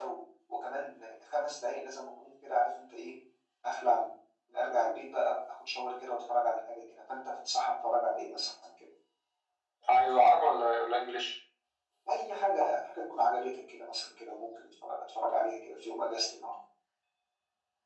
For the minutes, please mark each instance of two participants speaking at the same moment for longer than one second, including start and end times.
none

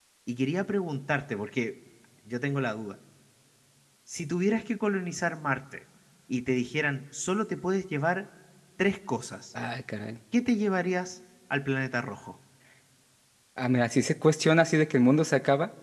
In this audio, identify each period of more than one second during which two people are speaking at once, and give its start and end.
none

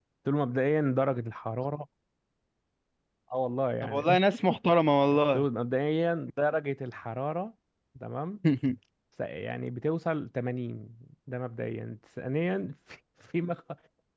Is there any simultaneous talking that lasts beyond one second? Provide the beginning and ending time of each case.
none

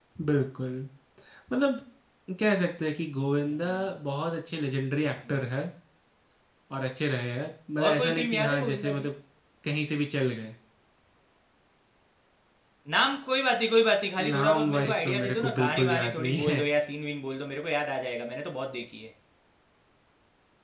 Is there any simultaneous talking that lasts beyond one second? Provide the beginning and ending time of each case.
7.8-9.1, 14.2-16.6

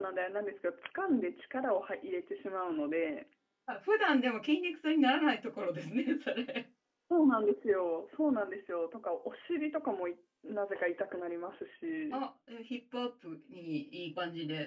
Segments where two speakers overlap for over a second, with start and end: none

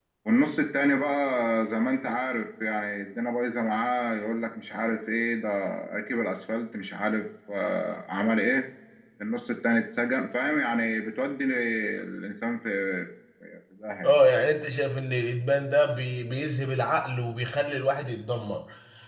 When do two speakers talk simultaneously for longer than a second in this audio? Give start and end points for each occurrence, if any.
none

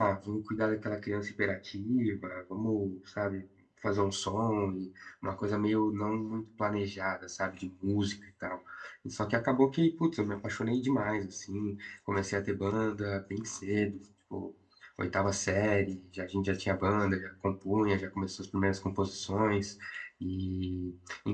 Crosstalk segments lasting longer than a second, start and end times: none

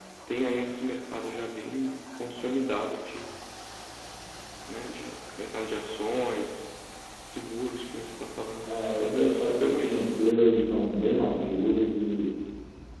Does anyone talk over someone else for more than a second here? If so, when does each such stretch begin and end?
8.7-10.2

